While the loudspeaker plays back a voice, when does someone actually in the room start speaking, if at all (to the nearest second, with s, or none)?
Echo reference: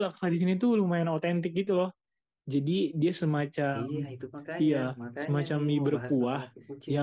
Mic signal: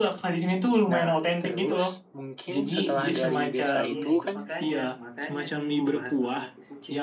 1 s